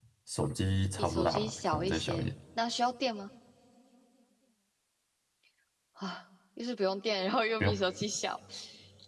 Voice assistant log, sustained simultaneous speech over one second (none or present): present